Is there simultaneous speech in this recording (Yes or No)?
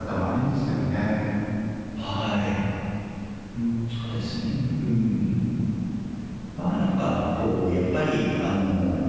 No